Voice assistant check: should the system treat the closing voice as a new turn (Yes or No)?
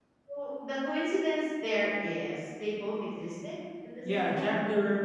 Yes